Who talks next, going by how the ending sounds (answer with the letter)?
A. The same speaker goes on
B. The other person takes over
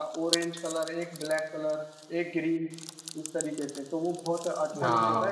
A